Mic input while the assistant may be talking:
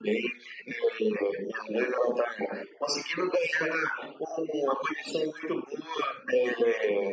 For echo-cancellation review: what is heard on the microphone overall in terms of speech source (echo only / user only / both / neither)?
echo only